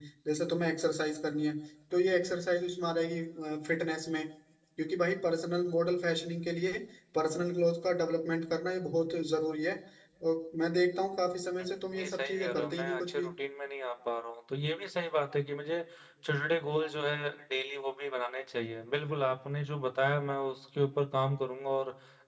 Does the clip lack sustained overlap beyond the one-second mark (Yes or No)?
No